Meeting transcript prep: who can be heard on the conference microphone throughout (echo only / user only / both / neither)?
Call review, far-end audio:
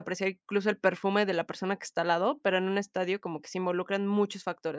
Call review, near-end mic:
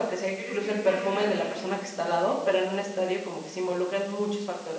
both